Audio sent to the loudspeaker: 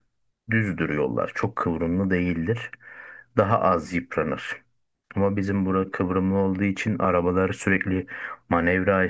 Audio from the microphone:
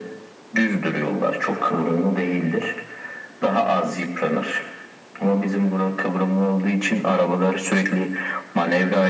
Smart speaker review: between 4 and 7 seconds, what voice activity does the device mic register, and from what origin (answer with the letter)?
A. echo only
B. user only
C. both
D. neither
A